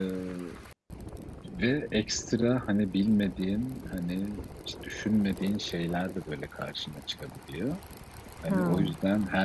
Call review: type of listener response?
listening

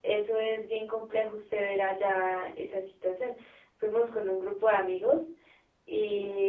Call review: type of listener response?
listening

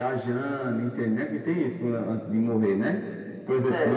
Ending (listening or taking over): taking over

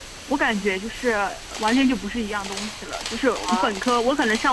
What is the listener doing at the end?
listening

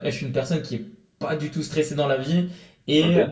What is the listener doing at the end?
listening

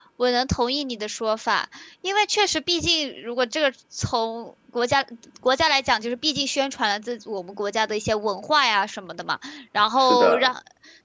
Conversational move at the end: listening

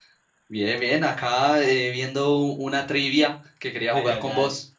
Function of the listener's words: taking over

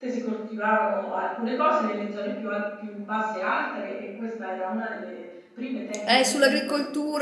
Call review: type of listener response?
taking over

